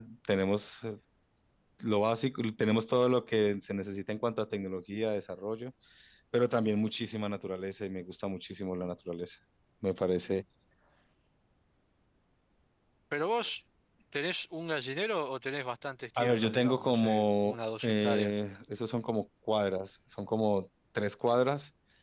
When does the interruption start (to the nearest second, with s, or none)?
16 s